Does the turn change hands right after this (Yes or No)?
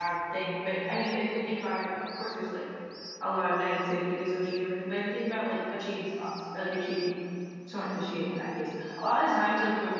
No